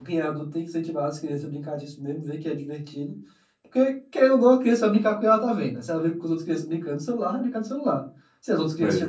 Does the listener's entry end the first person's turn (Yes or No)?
No